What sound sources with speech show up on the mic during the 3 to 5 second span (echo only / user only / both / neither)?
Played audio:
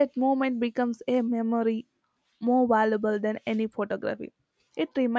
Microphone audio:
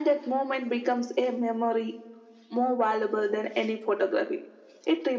echo only